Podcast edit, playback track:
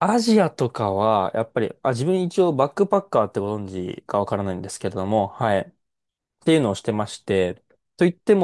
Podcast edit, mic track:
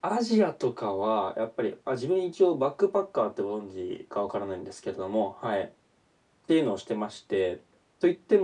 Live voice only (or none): none